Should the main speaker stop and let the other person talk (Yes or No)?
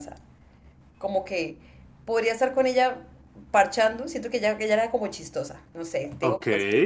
No